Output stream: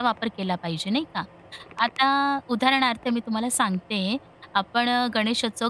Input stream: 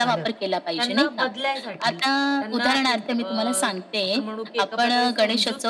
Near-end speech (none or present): present